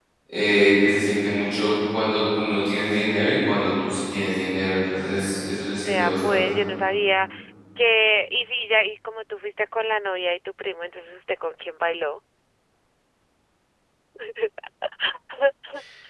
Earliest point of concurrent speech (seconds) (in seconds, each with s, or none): 4.9 s